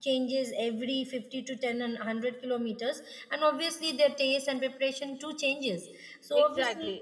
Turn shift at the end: Yes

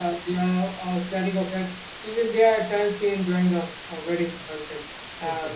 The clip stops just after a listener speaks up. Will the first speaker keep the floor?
Yes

